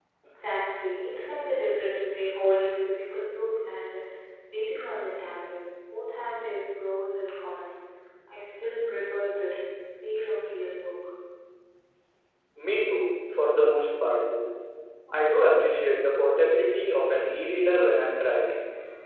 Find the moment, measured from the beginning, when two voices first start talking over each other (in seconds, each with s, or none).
none